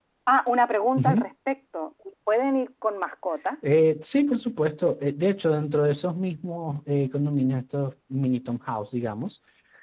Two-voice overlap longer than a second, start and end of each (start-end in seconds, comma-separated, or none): none